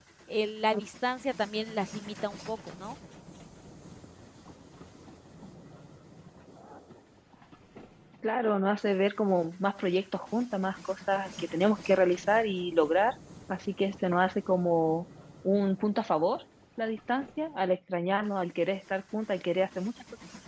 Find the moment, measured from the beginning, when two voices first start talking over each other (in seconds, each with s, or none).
none